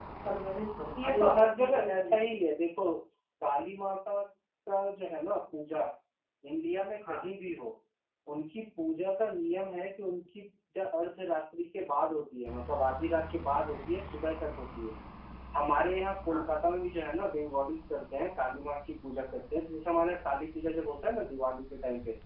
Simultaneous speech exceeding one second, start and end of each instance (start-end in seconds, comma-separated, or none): 1.0-2.4